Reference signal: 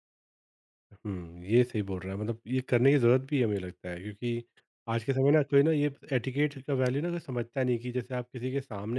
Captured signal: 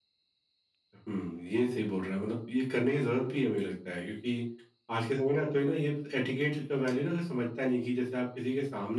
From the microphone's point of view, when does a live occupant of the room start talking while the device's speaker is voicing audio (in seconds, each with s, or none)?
none